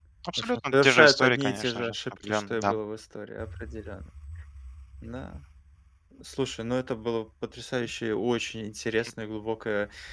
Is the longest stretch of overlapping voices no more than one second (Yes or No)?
No